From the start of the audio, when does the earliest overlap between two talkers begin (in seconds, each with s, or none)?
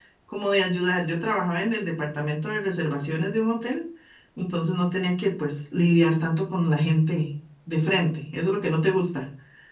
none